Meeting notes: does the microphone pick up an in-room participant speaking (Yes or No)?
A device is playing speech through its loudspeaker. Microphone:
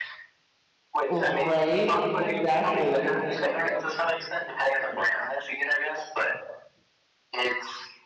Yes